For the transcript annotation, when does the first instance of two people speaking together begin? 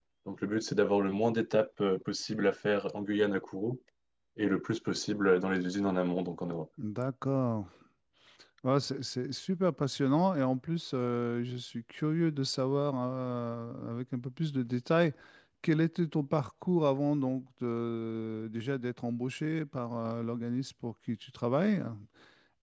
none

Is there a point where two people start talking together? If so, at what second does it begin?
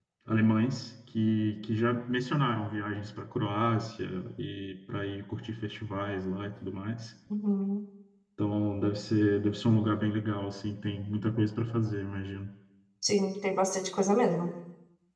none

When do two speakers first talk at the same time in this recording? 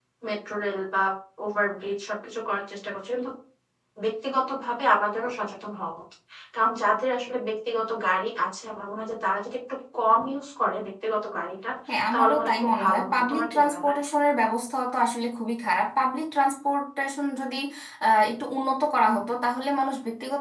12 s

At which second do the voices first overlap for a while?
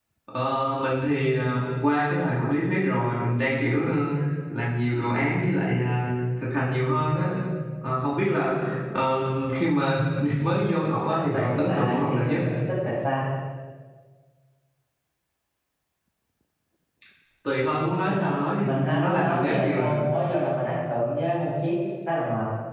11 s

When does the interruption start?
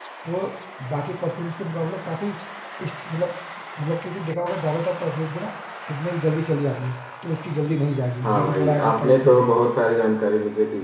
8 s

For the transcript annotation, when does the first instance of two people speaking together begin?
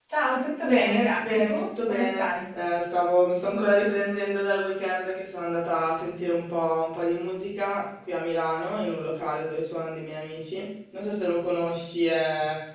1 s

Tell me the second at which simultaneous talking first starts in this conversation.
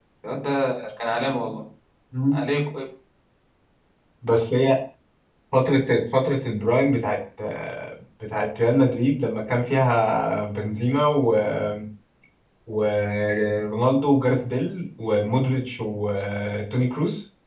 none

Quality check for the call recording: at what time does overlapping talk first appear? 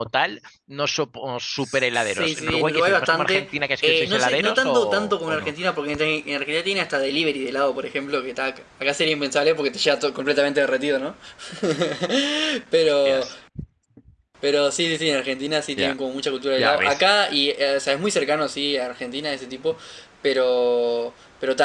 2 s

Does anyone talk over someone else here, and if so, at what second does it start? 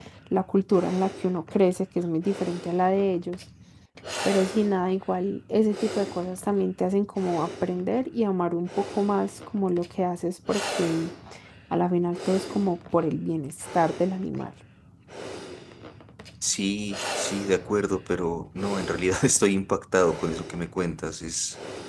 none

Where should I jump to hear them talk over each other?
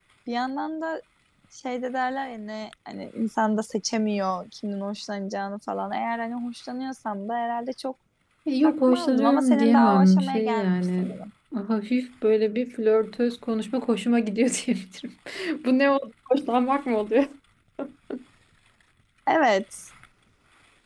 9 s

